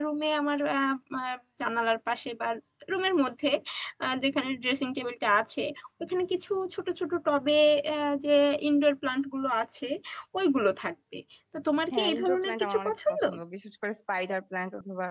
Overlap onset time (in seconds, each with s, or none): 11.9 s